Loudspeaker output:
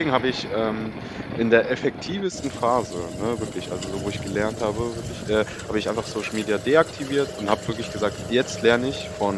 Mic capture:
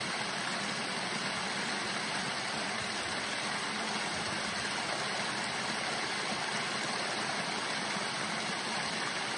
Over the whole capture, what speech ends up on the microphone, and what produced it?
neither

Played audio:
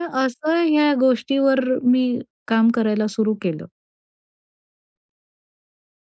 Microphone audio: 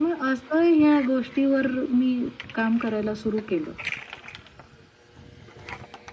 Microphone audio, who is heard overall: echo only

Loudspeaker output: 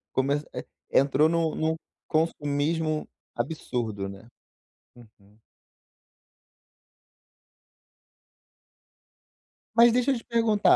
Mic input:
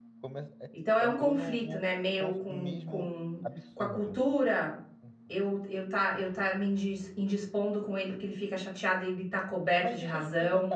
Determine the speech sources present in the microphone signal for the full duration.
both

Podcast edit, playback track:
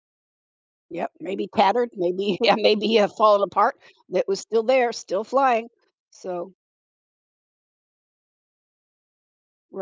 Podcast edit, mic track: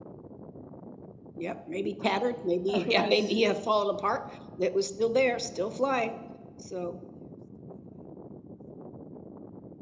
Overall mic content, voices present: both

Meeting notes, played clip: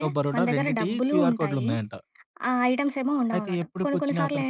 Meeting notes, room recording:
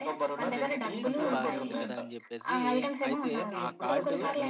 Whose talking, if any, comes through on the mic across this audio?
both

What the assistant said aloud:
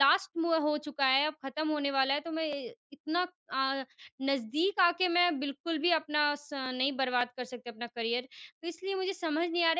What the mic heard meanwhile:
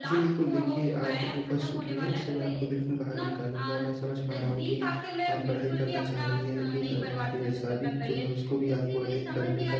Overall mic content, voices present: both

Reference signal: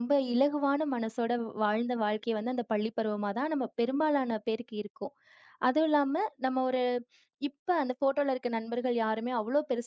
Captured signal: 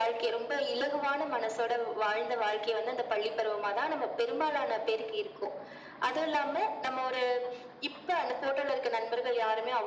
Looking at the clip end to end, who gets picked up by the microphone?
echo only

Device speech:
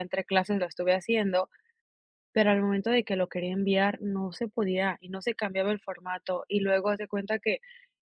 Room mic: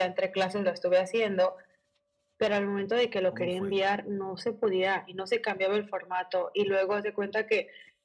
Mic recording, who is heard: both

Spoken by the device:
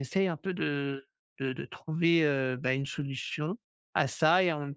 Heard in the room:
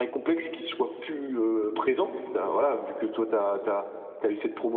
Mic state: user only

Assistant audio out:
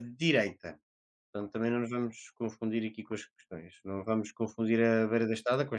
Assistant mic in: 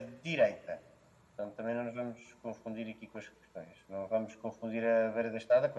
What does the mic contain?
echo only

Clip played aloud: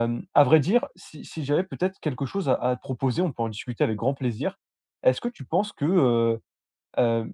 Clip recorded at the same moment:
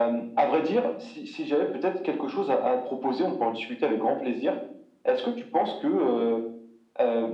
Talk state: echo only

